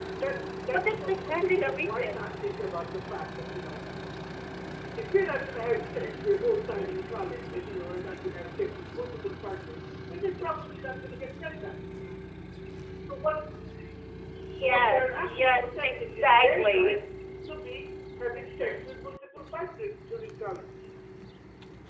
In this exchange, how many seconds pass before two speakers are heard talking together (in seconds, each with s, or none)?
0.7 s